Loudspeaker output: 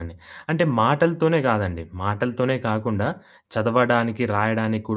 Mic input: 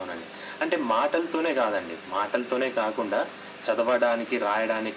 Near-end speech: none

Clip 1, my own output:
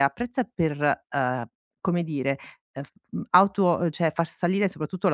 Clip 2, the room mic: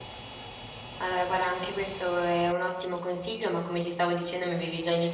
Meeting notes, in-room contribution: present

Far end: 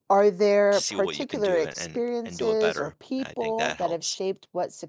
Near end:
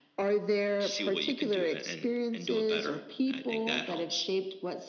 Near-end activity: none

